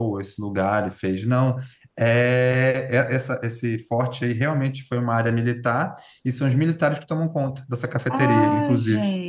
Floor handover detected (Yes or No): Yes